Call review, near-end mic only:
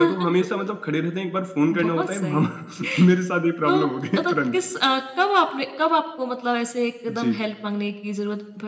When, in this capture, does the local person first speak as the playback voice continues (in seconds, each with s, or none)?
none